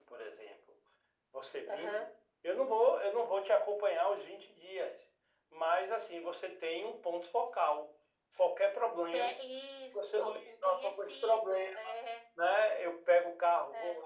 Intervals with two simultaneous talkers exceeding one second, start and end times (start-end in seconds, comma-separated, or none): 9.9-11.7